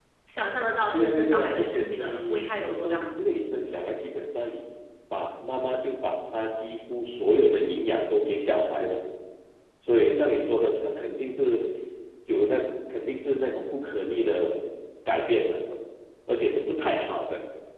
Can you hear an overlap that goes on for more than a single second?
Yes, from 0.9 s

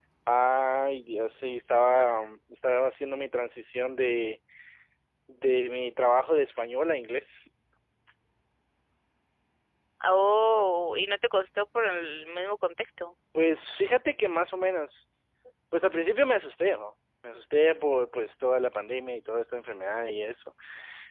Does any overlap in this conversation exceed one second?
No

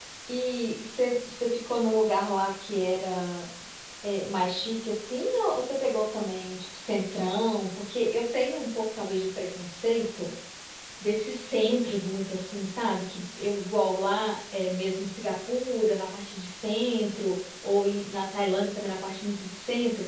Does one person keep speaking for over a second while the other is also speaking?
No

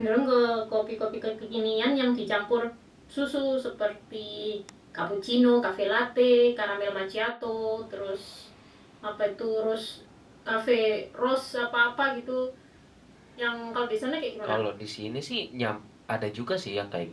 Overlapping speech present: No

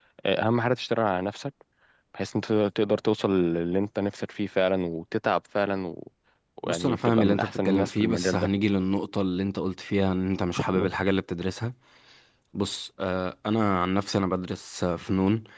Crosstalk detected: Yes, from 6.7 s

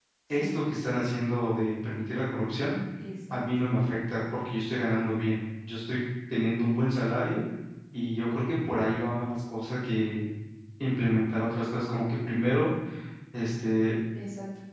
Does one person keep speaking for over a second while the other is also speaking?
No

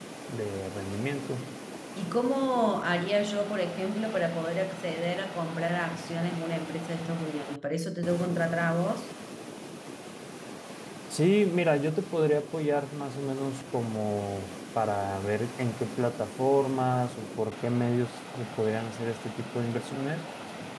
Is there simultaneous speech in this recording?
No

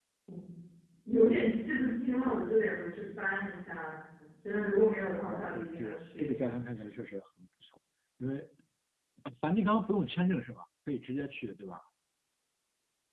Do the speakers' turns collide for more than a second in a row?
Yes, from 5.3 s

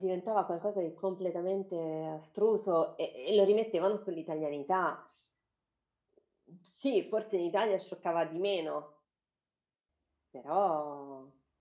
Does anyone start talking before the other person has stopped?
No

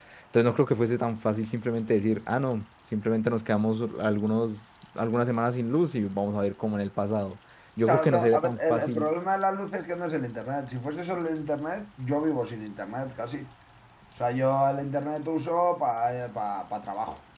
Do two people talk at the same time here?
Yes, from 7.9 s

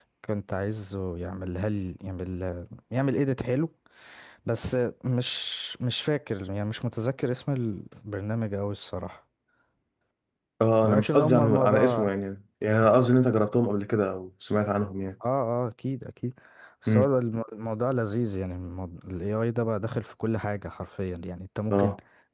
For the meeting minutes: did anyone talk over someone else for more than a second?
Yes, from 10.8 s

